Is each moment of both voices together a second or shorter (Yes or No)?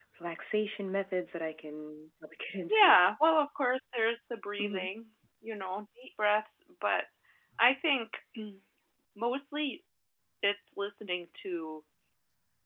Yes